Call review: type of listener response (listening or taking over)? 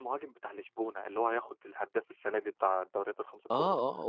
taking over